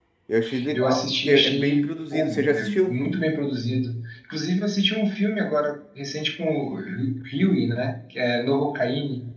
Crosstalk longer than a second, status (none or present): present